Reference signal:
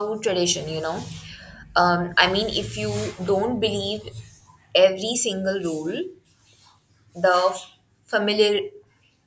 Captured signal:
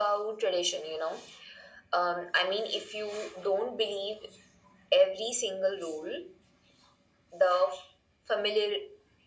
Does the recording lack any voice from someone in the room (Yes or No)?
Yes